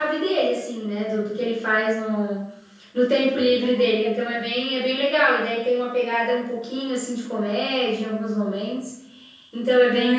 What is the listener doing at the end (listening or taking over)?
taking over